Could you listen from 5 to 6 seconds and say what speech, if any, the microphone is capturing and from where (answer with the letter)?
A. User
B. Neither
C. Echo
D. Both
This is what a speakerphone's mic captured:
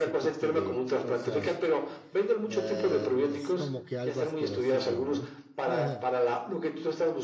D